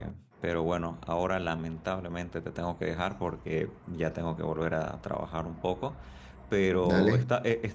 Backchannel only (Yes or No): Yes